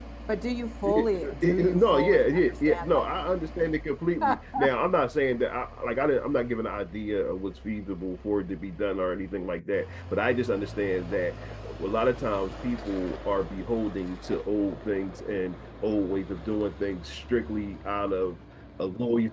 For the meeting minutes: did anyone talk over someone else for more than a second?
Yes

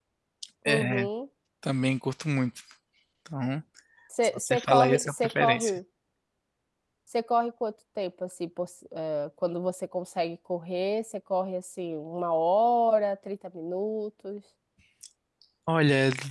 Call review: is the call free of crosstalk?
No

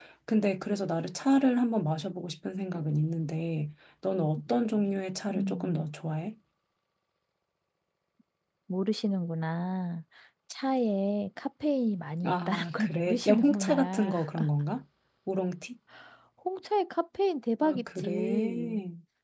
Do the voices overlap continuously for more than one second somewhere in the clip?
Yes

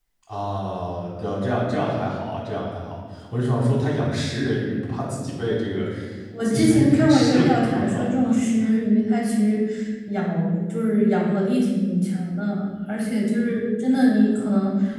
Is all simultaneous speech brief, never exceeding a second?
No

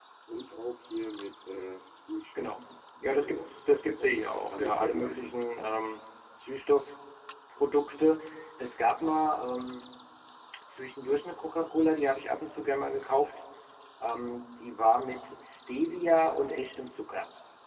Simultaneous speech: Yes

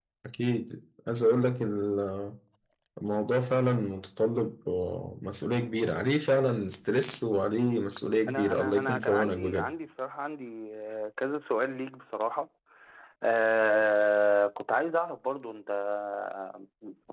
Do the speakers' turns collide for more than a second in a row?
Yes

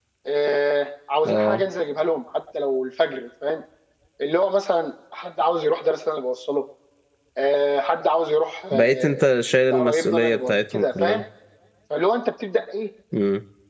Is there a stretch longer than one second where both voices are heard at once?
Yes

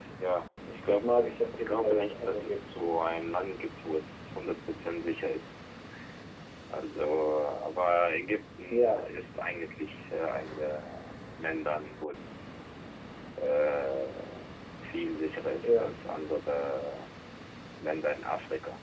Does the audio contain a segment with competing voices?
Yes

